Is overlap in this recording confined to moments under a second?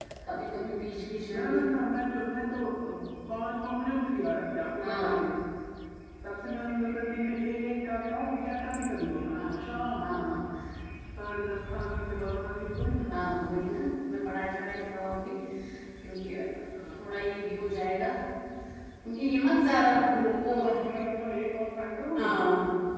Yes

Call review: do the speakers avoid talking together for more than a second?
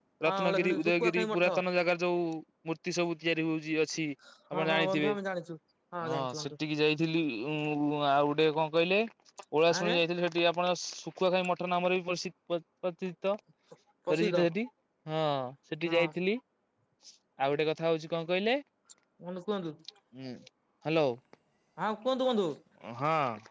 No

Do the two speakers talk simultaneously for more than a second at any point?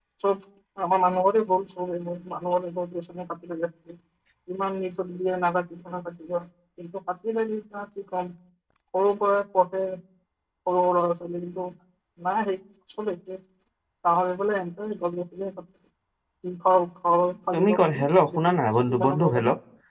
Yes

